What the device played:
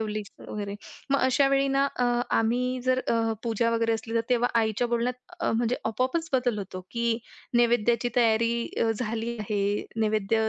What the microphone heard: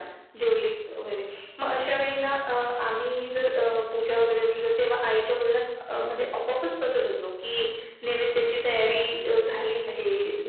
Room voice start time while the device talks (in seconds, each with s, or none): none